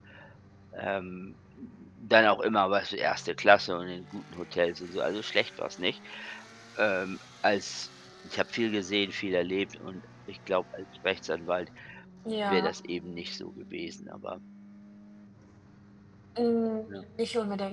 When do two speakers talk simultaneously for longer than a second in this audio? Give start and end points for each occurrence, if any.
none

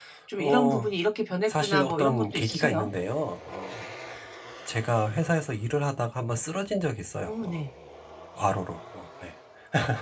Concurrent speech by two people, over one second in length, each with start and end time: 1.5-2.9

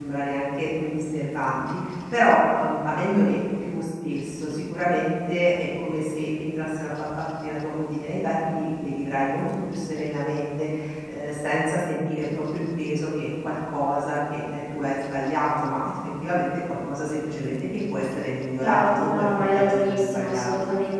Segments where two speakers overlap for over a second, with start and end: 18.6-20.5

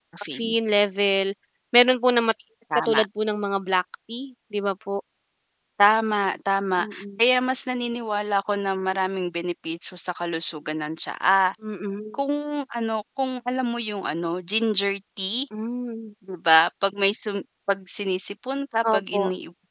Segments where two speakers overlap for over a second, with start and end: none

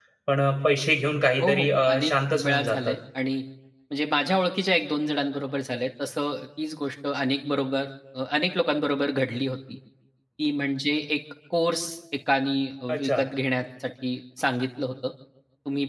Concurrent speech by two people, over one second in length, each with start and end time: 1.4-2.9

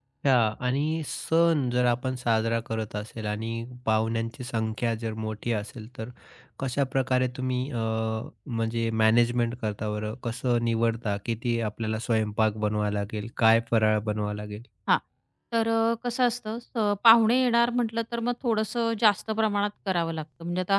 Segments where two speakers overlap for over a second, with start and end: none

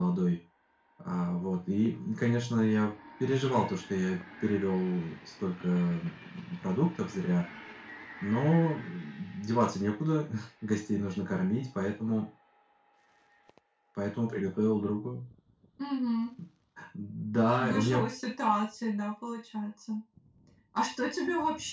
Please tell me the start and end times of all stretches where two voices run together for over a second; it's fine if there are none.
none

